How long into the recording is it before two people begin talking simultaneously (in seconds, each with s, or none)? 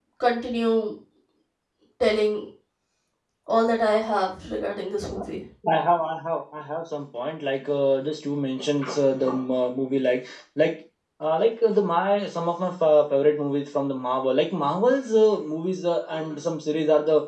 none